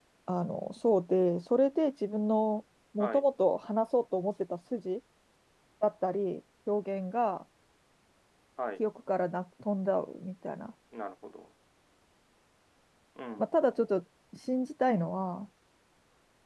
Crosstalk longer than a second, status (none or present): none